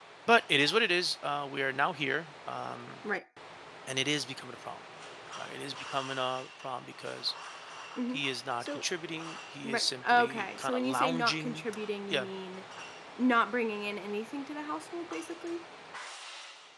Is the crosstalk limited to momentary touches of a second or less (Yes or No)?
No